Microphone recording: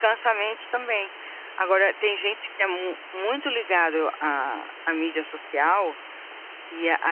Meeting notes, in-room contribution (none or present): present